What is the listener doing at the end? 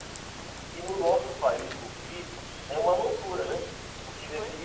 listening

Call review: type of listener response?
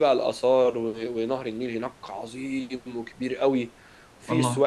listening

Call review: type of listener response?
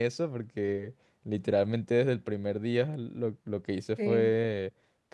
listening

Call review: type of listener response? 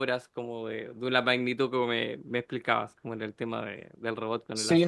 taking over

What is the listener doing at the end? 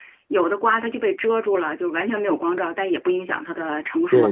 taking over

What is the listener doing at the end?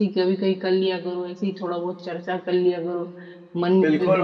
taking over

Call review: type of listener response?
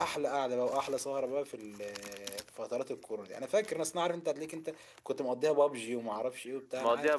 taking over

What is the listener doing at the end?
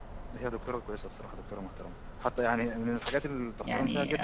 taking over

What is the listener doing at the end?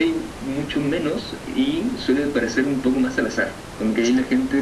listening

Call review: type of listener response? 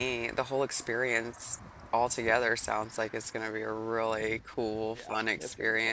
taking over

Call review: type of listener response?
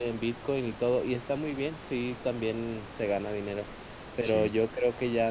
listening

